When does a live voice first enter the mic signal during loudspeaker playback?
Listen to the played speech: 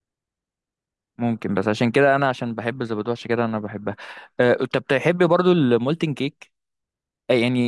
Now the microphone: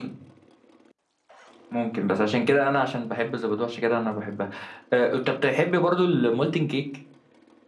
none

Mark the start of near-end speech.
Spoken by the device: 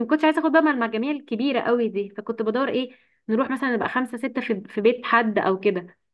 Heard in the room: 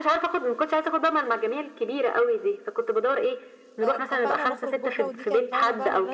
4 s

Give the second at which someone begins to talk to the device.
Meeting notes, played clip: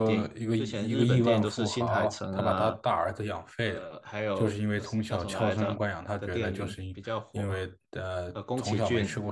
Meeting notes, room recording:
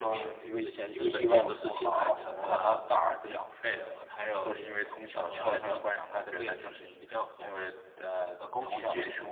none

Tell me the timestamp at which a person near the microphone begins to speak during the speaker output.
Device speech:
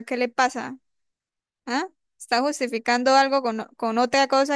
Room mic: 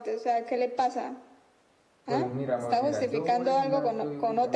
2 s

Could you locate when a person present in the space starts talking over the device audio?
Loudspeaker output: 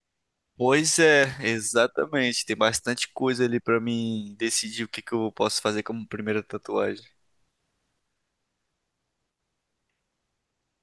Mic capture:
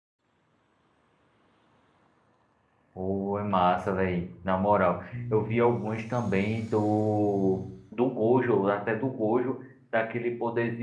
3 s

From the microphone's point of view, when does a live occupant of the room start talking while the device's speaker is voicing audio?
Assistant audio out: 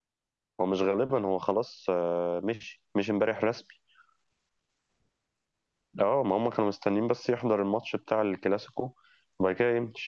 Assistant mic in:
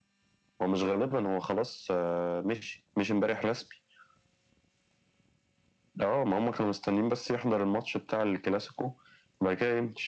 none

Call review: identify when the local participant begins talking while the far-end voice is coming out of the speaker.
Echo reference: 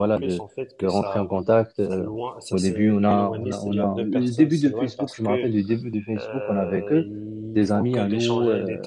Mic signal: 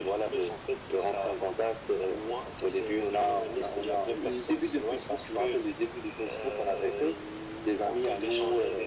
none

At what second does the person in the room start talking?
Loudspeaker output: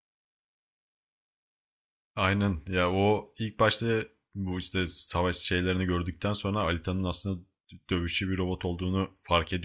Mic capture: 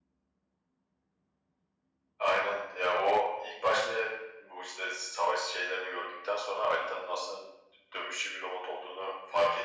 none

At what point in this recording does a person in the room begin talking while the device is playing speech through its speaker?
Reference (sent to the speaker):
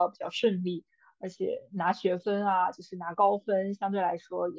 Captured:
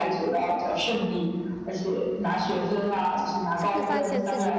4 s

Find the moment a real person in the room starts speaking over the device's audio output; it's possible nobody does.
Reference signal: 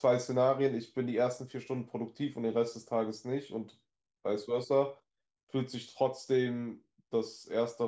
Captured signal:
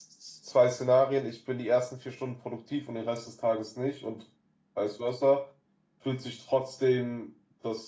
none

